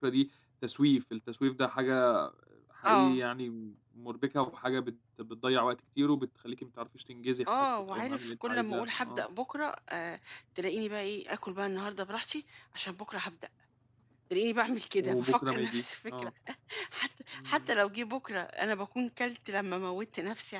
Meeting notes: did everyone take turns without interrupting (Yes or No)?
No